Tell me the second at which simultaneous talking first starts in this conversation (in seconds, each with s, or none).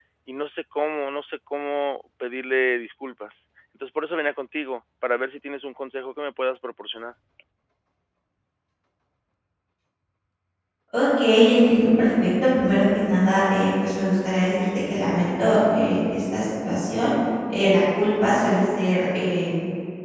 none